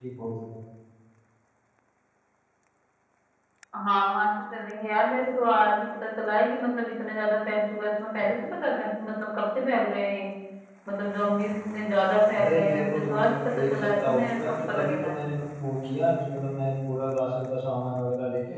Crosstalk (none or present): present